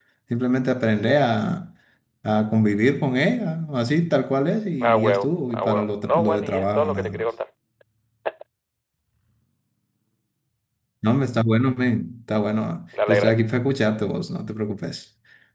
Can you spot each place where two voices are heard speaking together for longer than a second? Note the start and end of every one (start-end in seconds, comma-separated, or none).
4.8-7.2